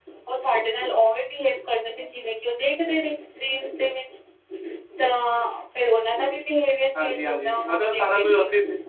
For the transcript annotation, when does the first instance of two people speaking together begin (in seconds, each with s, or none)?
6.9 s